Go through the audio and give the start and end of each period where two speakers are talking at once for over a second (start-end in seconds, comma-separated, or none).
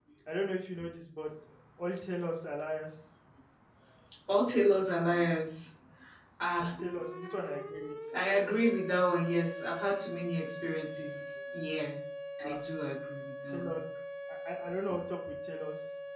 none